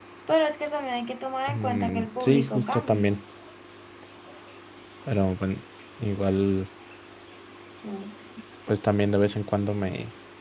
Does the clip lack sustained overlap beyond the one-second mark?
No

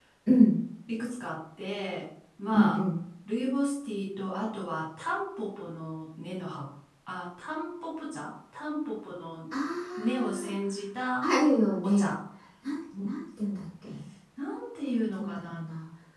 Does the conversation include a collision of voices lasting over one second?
No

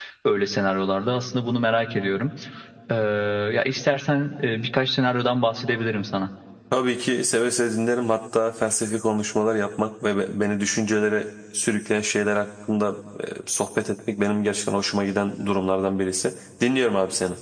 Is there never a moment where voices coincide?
Yes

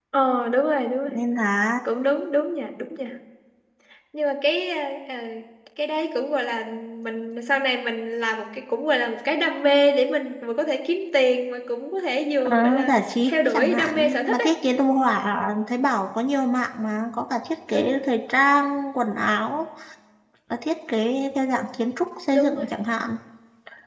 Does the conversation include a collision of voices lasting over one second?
Yes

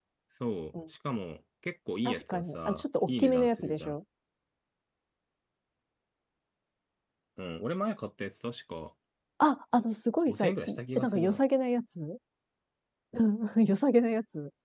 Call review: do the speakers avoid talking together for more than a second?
No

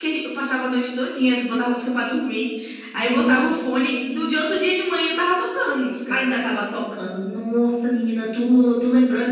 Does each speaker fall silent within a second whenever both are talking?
No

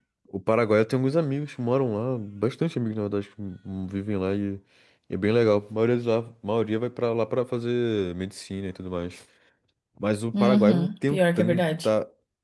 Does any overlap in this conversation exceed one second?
Yes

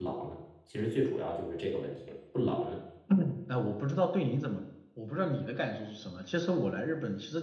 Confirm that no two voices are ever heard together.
Yes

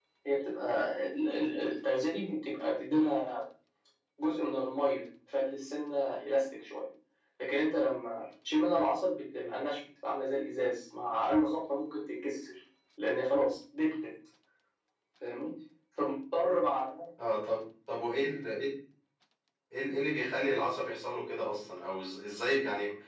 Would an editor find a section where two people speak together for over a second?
No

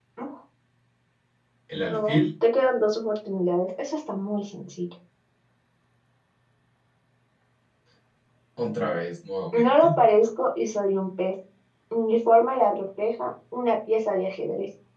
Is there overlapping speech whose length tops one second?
No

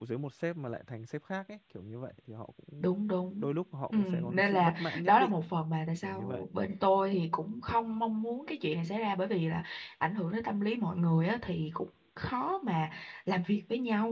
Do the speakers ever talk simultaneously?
Yes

